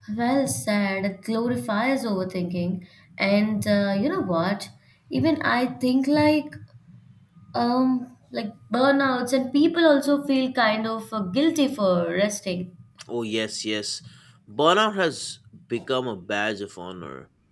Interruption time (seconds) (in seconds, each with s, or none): none